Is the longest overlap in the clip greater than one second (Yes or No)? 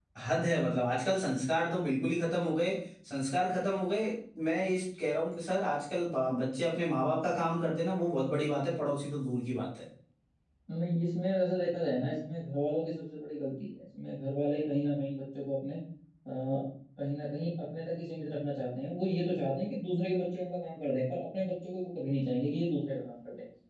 No